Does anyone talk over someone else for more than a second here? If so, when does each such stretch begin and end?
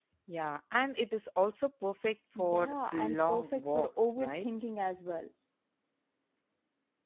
2.4-4.5

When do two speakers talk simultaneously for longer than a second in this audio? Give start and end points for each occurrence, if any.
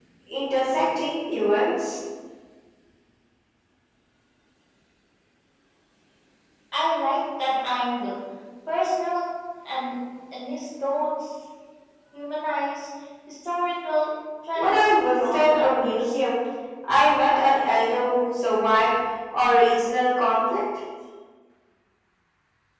14.6-16.1

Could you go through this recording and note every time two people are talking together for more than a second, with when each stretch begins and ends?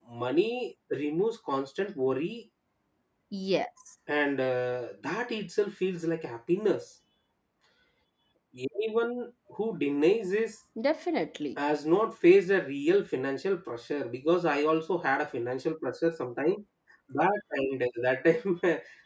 none

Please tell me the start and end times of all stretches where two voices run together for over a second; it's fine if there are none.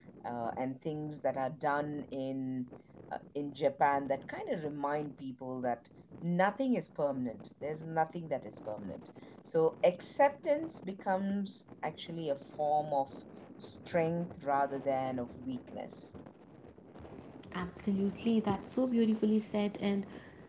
none

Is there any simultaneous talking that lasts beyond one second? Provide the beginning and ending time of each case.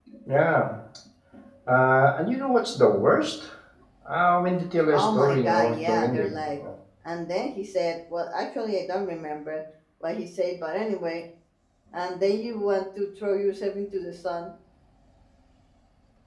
4.9-6.6

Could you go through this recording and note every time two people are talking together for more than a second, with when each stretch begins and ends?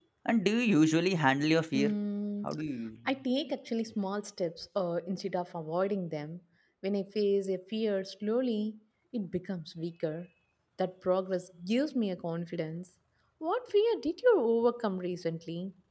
none

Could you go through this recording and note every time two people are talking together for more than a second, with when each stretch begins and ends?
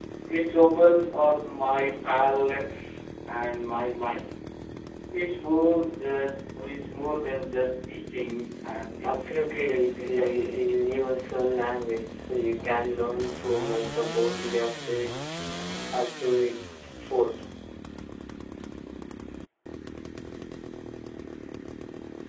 9.0-10.5

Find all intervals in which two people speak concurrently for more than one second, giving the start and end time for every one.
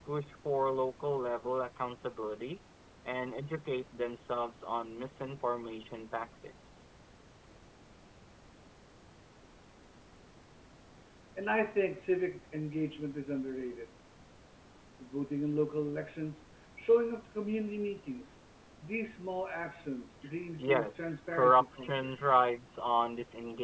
20.6-22.1

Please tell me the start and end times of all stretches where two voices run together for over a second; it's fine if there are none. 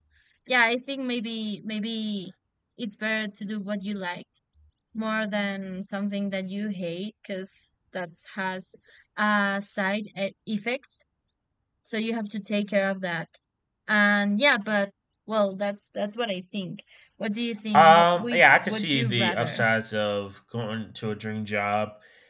17.7-19.6

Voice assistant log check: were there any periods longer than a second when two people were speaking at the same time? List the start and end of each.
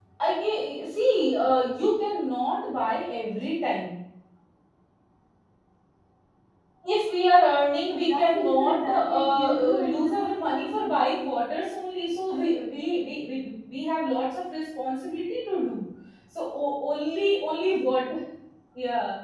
8.1-10.6

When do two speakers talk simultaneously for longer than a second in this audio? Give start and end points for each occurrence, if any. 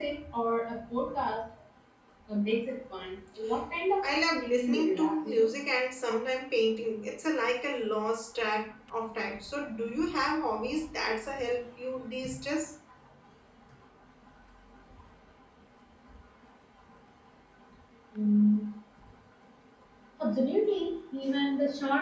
4.0-5.5

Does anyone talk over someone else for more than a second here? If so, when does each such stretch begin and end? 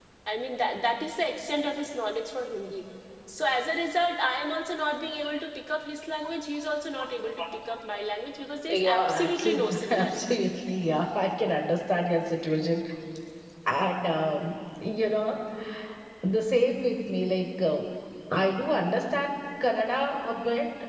8.7-10.2

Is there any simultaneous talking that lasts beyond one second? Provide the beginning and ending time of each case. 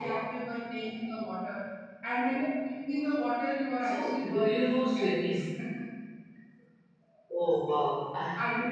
3.8-5.4

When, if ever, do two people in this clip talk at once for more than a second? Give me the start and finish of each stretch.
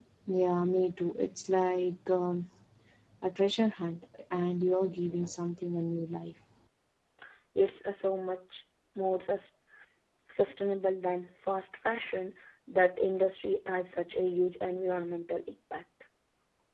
none

